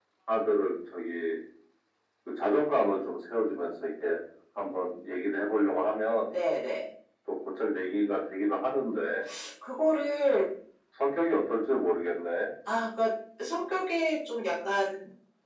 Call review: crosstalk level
none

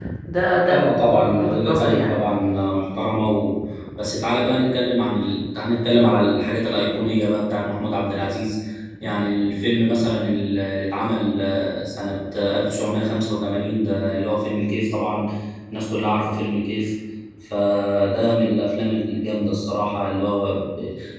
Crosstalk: present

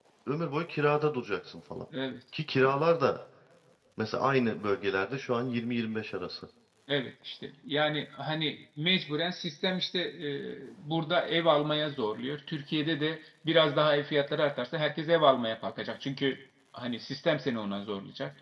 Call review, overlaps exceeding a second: none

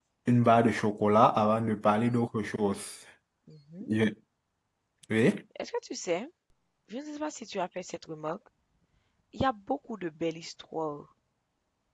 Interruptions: none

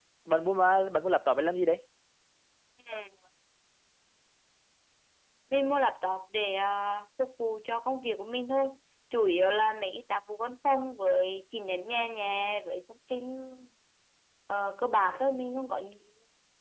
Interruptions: none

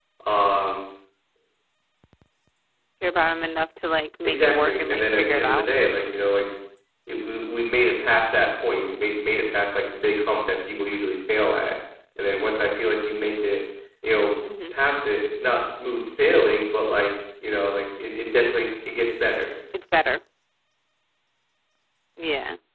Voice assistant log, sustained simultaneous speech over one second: present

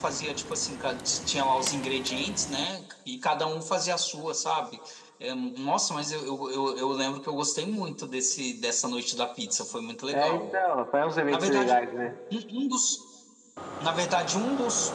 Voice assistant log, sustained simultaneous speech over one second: none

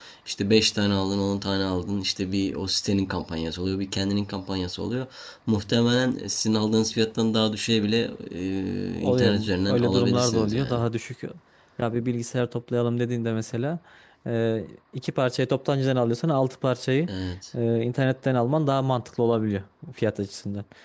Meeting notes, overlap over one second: present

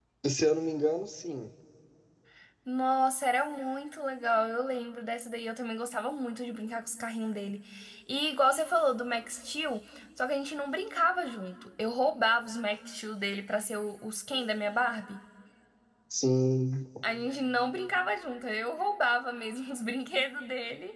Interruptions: none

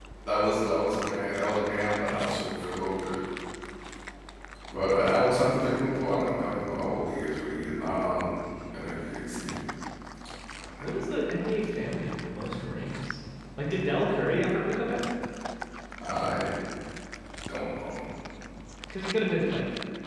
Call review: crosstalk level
none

